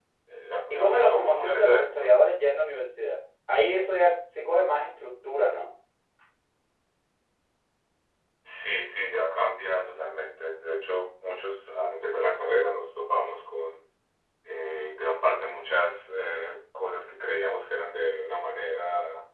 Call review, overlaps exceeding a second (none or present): present